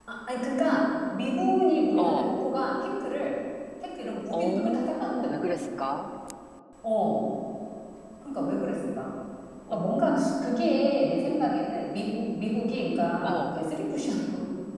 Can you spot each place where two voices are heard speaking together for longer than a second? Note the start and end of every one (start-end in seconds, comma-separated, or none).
4.3-5.6